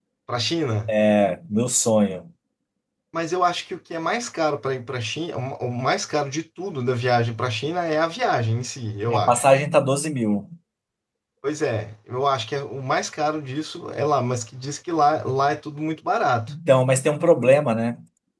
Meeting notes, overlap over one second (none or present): none